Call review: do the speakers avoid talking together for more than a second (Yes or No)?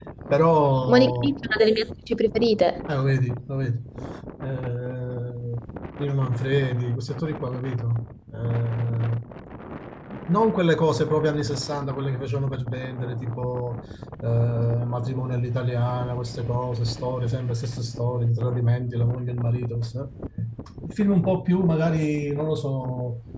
Yes